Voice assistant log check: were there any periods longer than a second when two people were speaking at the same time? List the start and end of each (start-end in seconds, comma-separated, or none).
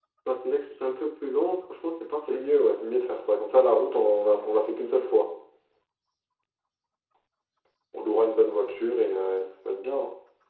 none